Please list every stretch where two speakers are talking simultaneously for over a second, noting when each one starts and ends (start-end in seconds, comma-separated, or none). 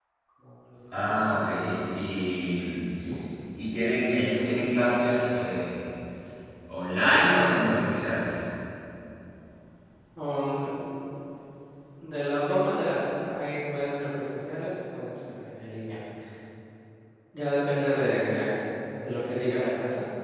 none